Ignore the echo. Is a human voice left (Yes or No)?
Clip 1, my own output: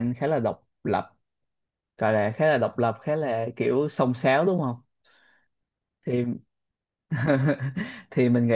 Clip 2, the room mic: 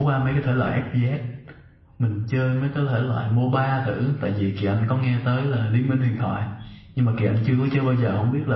Yes